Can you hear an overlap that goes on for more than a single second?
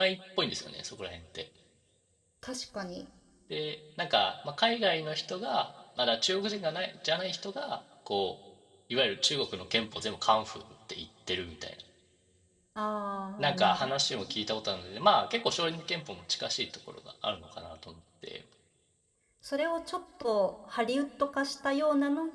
No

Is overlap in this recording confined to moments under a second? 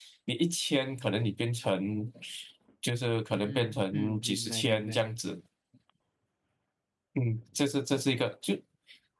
No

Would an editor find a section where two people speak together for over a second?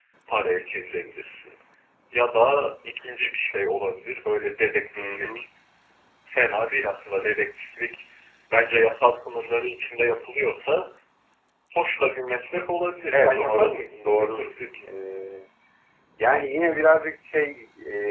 Yes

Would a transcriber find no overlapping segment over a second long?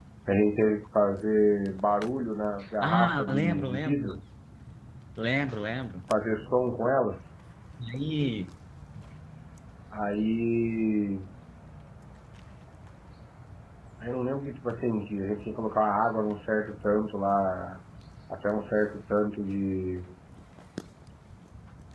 No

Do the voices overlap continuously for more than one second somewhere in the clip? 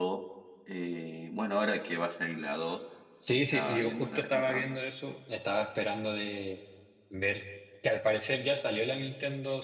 Yes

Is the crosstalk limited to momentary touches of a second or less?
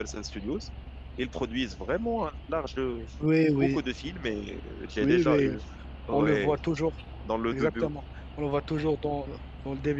Yes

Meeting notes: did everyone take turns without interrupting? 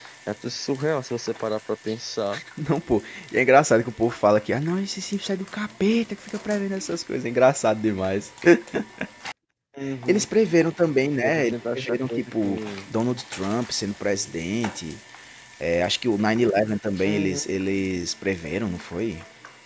No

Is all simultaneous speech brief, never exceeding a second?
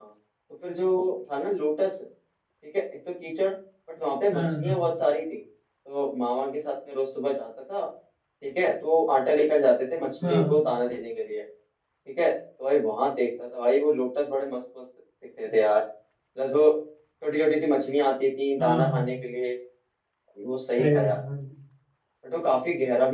Yes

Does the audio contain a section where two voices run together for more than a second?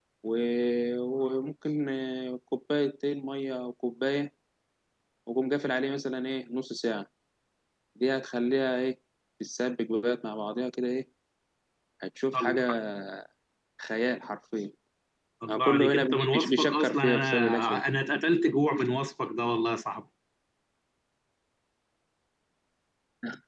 Yes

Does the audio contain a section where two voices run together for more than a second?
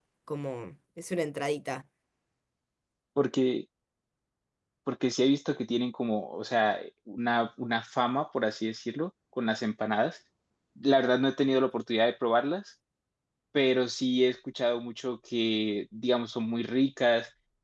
No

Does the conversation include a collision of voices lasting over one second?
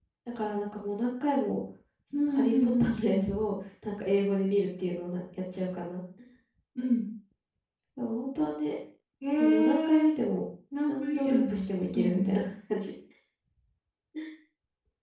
Yes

